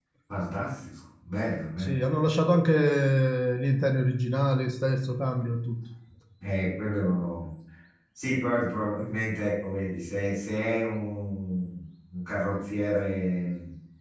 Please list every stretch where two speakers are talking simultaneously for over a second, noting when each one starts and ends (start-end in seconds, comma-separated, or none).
none